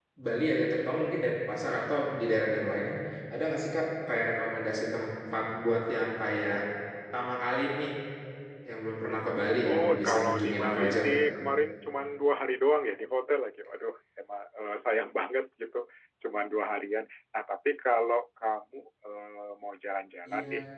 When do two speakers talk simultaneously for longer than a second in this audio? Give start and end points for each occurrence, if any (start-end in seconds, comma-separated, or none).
9.6-11.2